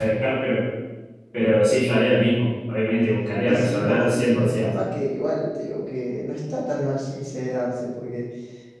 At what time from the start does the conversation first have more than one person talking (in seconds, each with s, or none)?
3.5 s